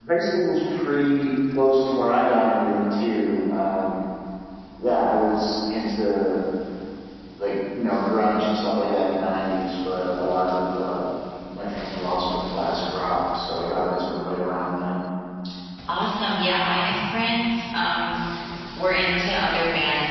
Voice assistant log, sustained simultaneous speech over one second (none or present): none